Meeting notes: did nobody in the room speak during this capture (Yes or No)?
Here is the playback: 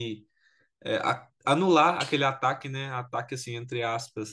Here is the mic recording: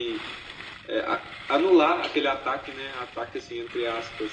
Yes